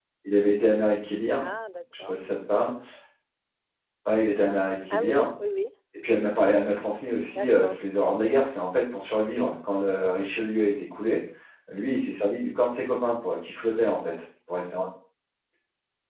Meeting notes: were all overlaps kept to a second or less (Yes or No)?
Yes